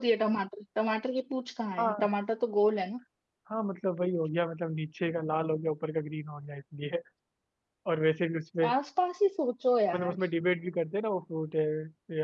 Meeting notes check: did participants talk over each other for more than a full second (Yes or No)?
No